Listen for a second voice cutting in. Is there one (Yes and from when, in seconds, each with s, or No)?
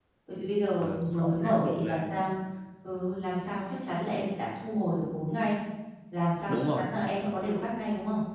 Yes, from 0.8 s